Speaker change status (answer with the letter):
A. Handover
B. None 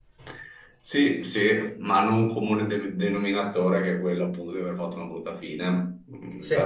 B